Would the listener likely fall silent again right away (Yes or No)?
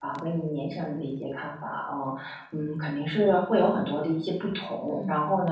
Yes